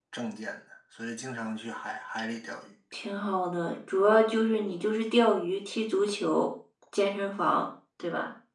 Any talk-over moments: No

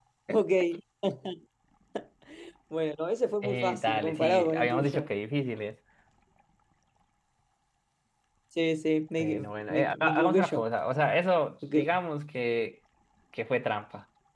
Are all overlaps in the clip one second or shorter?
No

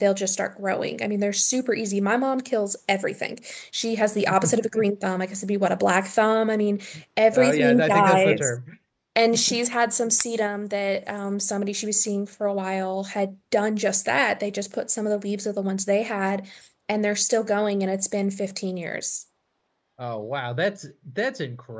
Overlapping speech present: Yes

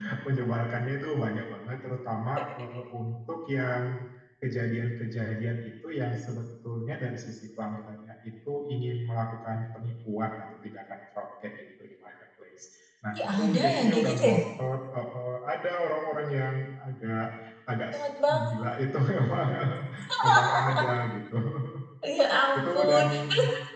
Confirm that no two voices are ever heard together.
No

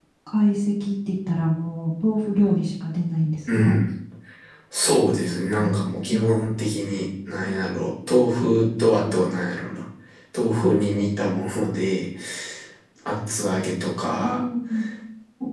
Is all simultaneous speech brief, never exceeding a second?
Yes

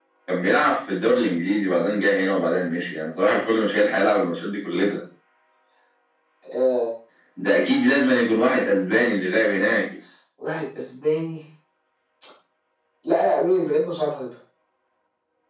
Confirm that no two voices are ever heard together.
Yes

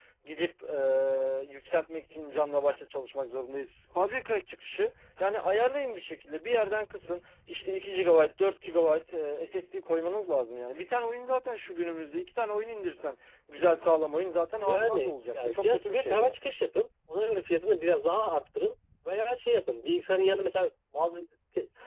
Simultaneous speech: Yes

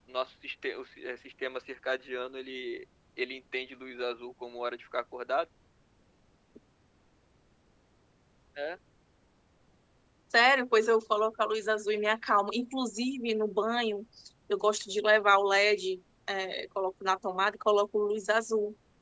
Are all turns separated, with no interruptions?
Yes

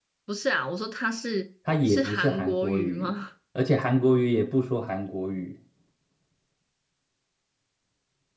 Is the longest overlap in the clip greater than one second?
Yes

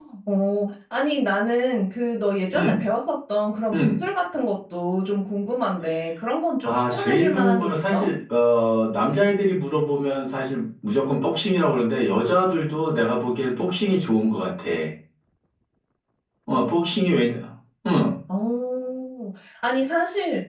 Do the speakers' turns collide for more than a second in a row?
Yes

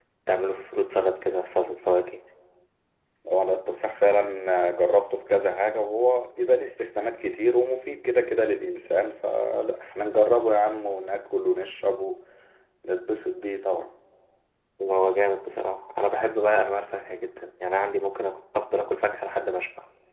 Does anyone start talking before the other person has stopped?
No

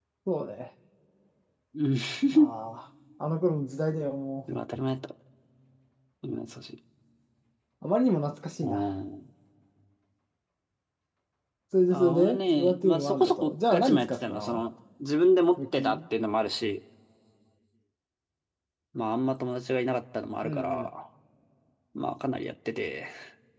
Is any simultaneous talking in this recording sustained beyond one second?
Yes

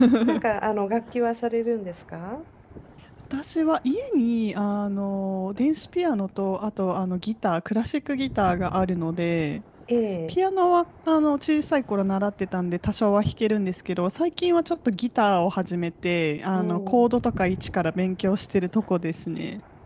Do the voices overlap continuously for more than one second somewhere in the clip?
No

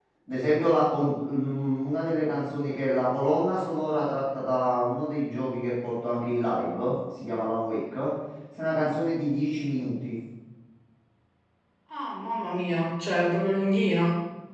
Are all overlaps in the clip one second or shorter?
Yes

